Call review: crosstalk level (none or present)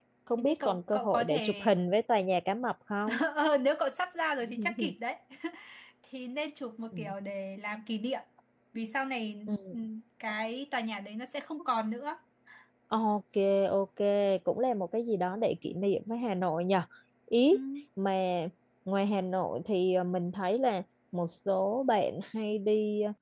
present